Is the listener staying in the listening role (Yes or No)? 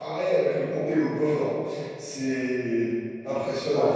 Yes